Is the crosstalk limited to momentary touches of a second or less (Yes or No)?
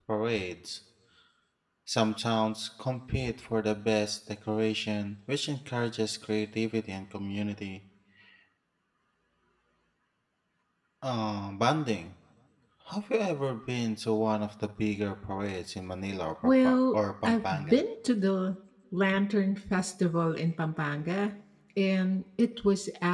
No